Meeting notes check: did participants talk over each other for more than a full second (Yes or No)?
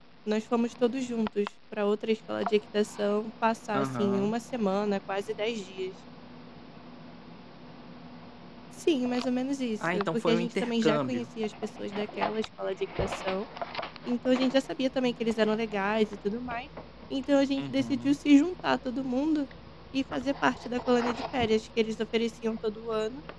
Yes